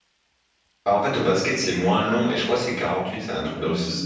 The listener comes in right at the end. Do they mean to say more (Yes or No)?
Yes